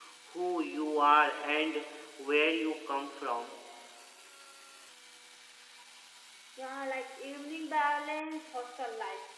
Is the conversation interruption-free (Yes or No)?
Yes